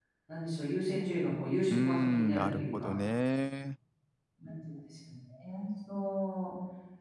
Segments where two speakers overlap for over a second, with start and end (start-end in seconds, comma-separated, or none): 1.7-2.9